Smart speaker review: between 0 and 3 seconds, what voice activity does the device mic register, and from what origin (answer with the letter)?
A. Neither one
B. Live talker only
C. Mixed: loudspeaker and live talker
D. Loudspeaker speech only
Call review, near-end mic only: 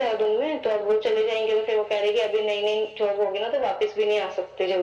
D